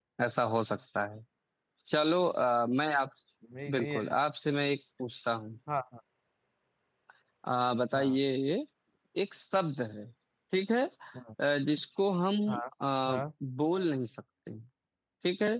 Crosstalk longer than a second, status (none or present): none